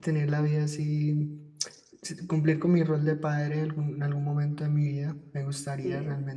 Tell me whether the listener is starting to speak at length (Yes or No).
No